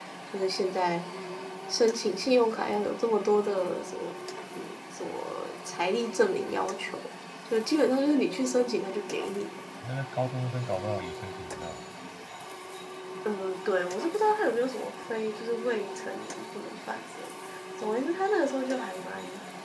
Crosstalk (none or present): none